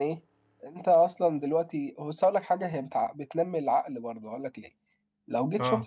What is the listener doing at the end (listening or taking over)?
listening